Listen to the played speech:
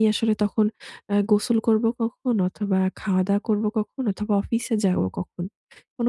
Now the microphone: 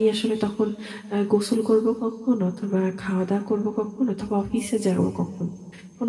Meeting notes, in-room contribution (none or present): none